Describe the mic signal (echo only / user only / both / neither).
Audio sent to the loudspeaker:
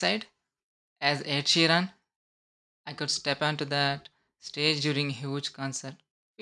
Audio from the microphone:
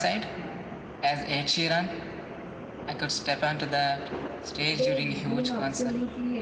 both